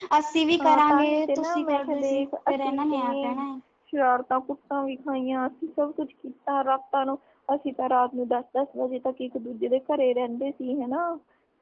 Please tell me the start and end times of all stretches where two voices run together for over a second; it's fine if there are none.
0.6-3.3

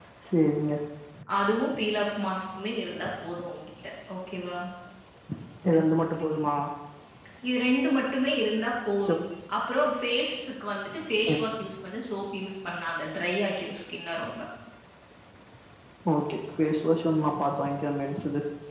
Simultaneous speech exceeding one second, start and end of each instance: none

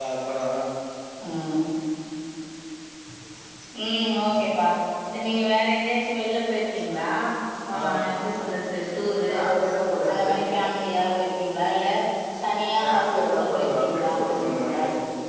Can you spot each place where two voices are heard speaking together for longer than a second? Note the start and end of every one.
12.8-14.8

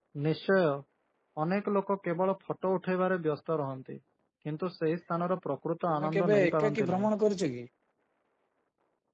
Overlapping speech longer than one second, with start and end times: 5.9-7.1

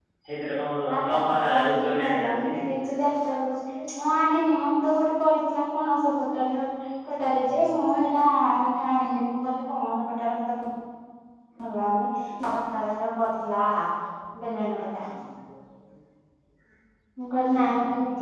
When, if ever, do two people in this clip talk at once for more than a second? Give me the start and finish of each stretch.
0.9-2.5

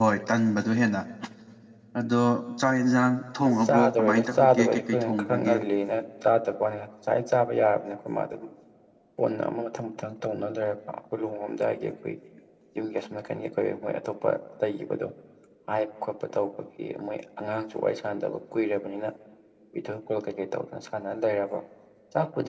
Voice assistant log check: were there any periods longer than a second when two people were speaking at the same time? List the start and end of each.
3.6-5.5

